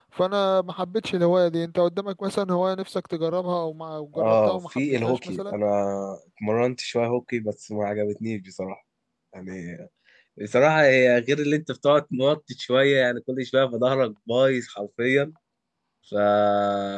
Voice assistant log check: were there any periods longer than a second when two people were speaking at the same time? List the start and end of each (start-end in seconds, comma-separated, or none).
4.2-5.6